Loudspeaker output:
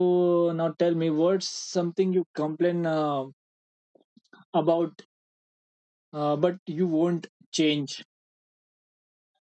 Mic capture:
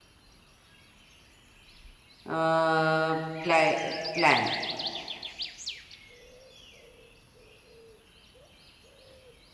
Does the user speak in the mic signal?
Yes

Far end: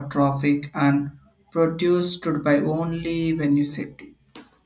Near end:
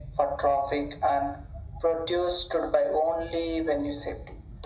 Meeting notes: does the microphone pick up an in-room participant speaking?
No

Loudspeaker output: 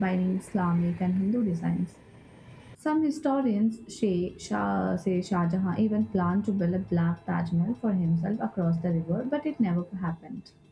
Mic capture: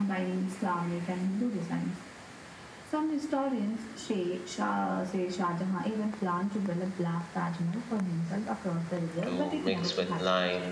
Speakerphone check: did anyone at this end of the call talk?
Yes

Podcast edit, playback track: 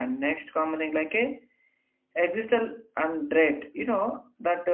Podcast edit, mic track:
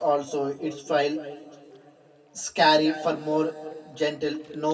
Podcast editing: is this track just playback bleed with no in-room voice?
No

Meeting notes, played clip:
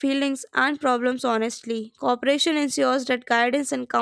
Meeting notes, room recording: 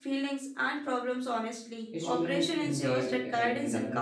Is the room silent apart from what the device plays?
No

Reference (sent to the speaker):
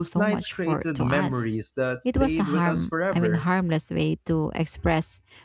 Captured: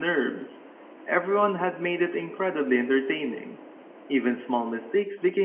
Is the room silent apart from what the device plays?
No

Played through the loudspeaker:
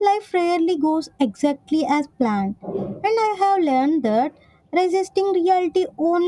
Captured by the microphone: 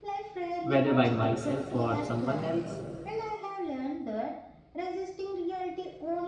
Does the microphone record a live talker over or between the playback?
Yes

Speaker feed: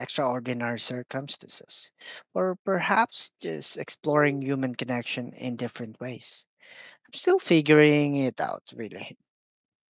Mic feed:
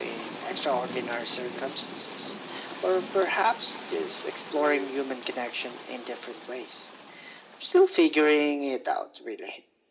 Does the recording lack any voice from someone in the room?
Yes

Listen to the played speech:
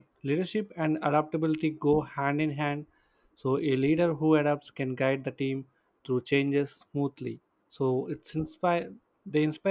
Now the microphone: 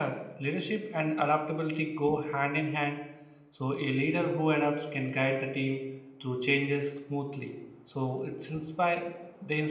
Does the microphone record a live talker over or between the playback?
No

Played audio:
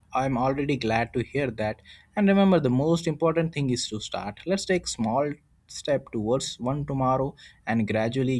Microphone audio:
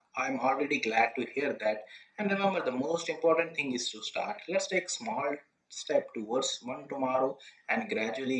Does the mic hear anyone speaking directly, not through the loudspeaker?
No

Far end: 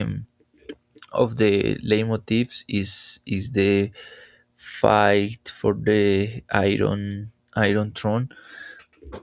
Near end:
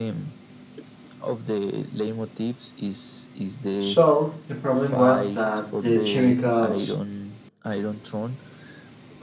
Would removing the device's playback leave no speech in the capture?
No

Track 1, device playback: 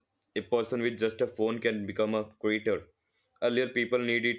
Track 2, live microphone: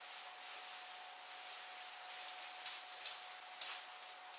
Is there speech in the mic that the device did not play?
No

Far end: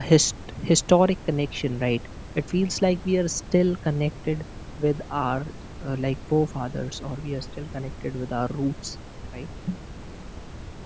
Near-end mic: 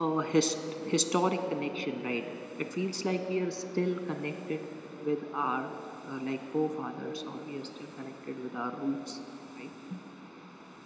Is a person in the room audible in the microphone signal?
No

